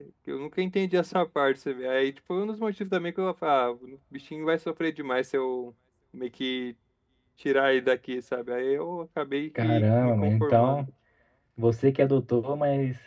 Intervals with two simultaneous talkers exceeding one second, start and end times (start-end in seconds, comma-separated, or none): 9.6-10.8